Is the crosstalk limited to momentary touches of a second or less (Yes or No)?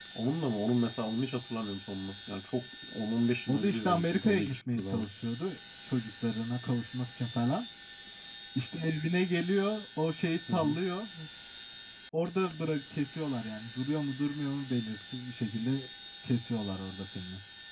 No